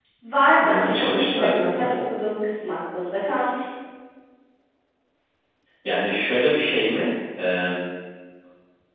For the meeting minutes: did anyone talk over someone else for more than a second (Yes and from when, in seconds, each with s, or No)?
Yes, from 0.6 s